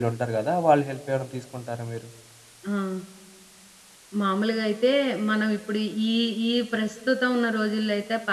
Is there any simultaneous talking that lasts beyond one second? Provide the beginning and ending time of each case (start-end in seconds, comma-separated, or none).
none